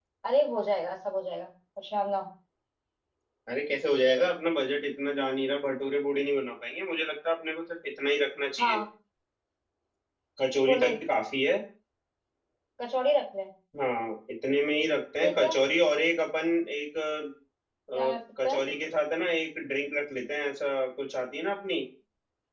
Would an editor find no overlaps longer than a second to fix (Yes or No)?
Yes